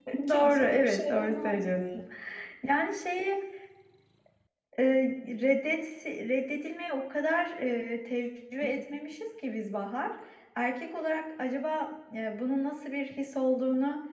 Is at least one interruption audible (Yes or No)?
Yes